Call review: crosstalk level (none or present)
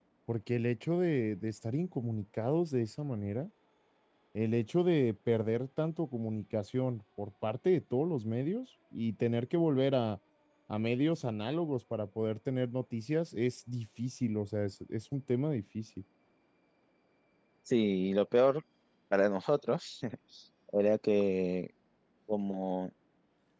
none